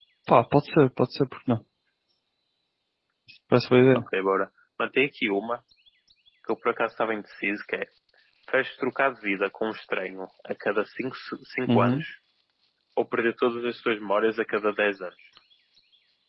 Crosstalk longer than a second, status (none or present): none